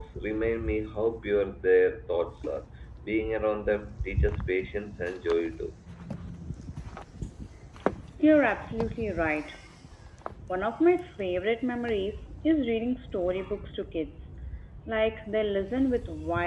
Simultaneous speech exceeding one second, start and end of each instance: none

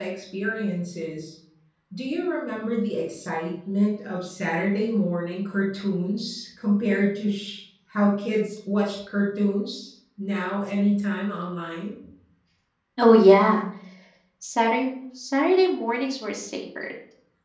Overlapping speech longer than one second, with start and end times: none

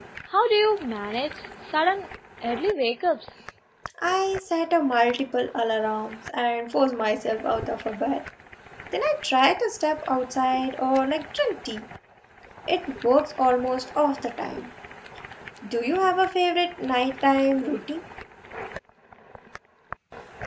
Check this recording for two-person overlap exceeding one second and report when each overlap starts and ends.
none

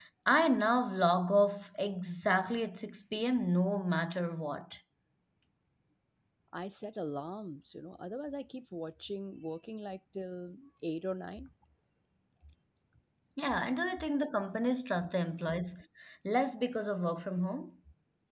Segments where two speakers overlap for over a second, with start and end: none

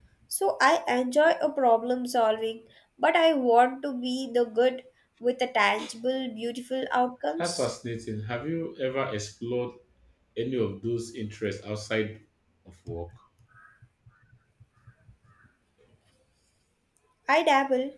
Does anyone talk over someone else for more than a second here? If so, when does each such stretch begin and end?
none

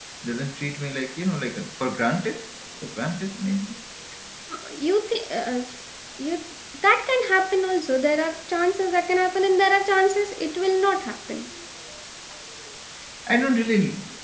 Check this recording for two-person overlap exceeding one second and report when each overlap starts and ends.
none

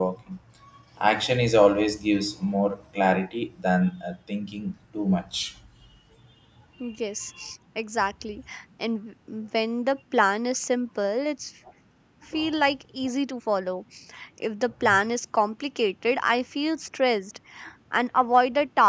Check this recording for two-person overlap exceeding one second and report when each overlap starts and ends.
none

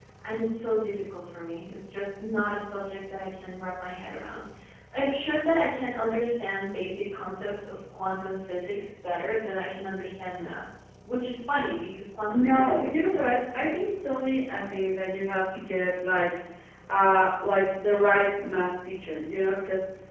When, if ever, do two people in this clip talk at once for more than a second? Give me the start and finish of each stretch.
12.3-13.8

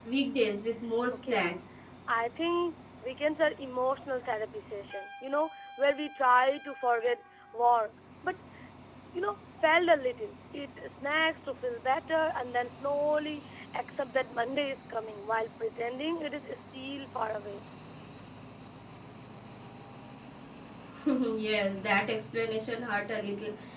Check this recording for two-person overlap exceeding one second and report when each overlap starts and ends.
none

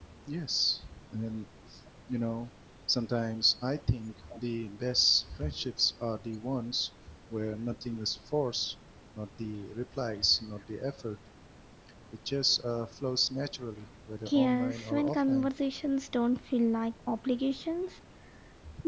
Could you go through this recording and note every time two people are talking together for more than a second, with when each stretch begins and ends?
14.2-15.5

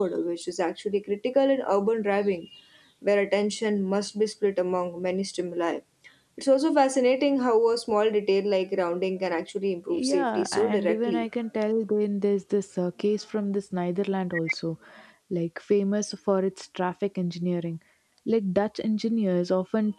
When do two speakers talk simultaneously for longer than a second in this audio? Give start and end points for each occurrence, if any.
9.9-11.3

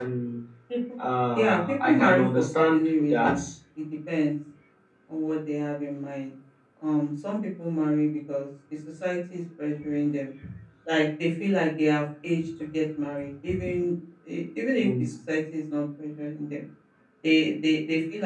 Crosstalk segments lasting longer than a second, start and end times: 1.4-3.4

